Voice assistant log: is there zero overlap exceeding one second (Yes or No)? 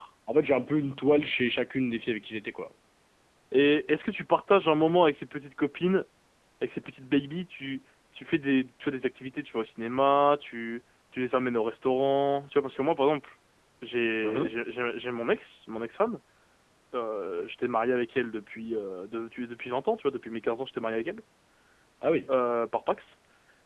Yes